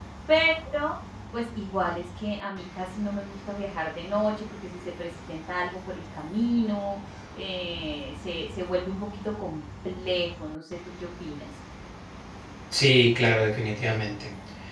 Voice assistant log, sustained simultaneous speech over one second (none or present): none